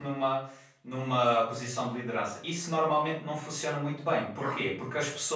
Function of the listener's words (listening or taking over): listening